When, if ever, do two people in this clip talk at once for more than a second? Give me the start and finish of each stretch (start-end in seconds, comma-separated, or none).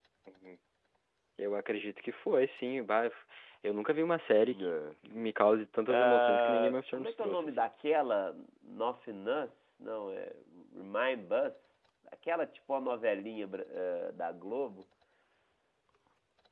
5.9-7.6